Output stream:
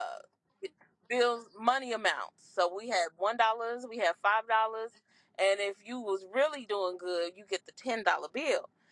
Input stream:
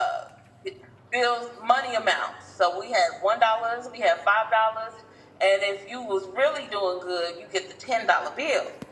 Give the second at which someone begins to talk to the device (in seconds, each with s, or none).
none